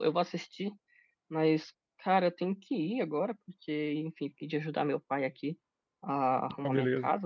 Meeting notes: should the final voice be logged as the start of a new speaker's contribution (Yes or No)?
No